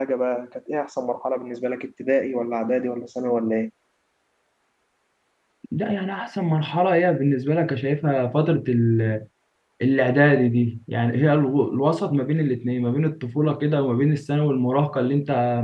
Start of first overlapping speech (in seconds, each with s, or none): none